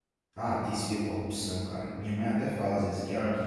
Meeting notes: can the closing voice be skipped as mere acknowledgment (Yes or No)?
Yes